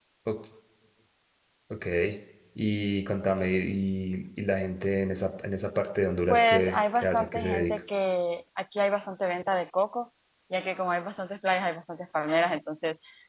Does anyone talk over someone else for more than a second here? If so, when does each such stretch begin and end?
6.3-7.7

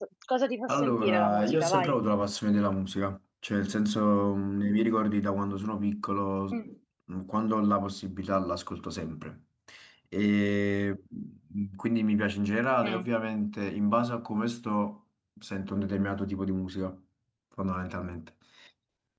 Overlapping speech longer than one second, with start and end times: 0.7-1.9

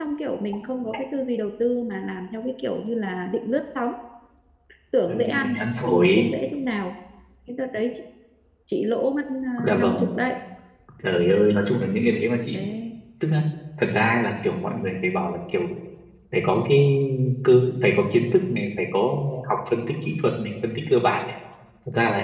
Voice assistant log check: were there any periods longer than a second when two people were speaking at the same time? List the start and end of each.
5.1-6.3

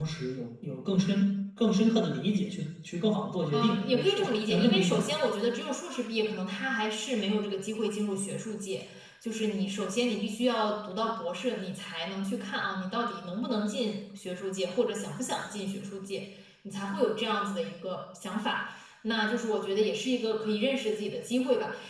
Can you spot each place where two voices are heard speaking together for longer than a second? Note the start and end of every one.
3.5-5.1

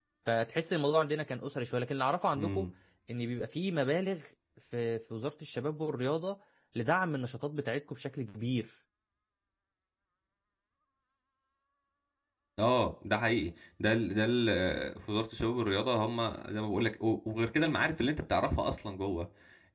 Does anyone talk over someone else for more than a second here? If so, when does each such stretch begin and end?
none

